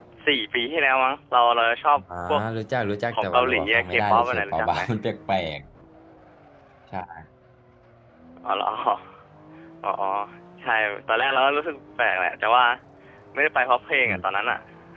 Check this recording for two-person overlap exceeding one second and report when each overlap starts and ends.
3.1-4.8

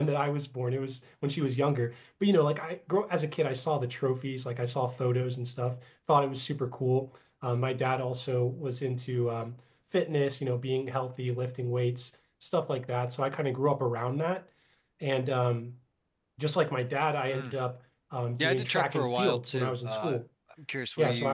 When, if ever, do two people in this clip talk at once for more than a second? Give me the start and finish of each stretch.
18.4-20.2

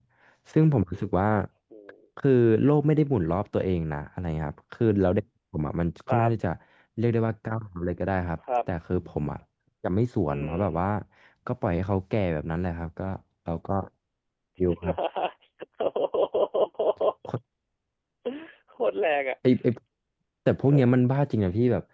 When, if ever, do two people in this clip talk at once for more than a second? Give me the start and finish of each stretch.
none

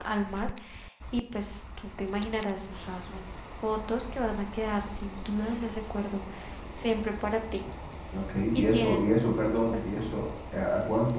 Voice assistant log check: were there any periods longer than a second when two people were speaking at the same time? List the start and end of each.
8.5-9.8

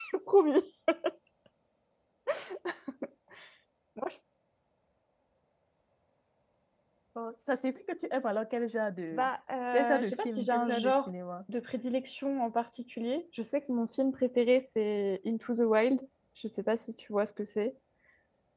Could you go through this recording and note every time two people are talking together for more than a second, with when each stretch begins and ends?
9.7-11.1

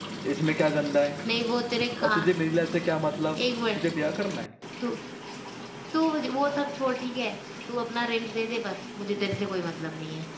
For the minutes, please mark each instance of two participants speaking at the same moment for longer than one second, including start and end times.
none

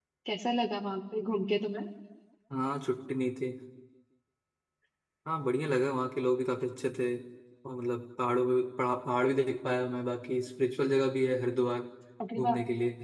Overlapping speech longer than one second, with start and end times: none

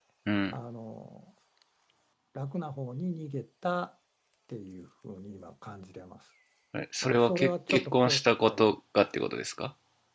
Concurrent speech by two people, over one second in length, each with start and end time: 7.0-8.6

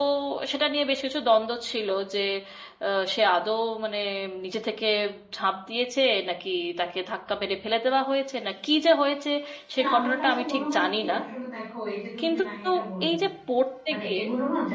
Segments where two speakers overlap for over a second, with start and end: 9.8-11.2

